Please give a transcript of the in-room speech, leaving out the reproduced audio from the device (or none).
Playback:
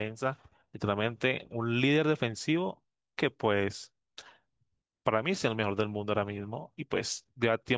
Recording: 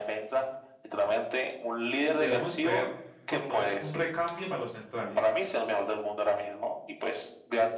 deberíamos escoger por lo menos un recambio para los centrales.